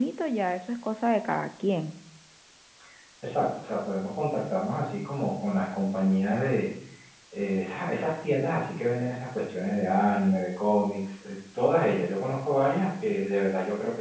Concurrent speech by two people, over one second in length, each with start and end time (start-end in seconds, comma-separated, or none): none